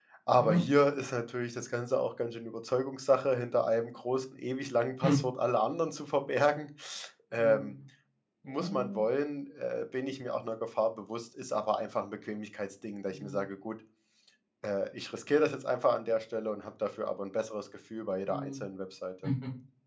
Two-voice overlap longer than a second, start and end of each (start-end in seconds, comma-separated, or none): none